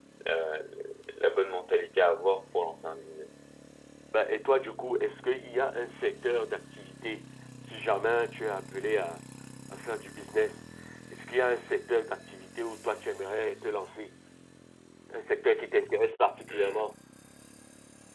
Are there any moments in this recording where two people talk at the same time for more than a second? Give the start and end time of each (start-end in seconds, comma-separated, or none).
none